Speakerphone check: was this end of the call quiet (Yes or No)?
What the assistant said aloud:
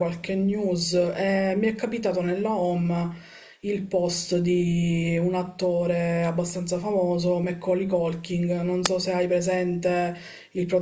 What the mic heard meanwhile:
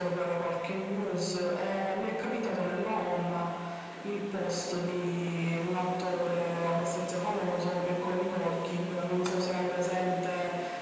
Yes